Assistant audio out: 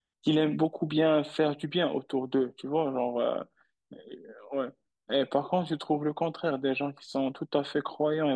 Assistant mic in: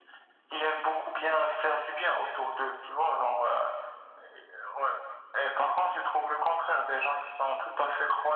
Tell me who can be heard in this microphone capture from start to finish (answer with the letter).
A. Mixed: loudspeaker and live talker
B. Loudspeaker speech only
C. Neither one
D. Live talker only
B